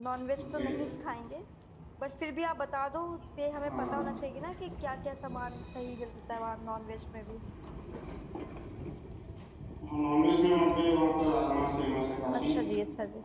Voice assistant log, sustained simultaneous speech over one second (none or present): none